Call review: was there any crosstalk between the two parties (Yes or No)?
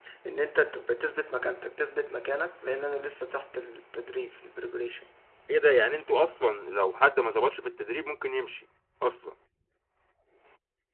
No